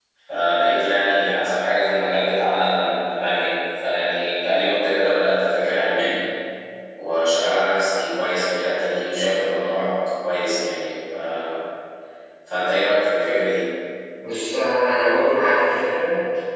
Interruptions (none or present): none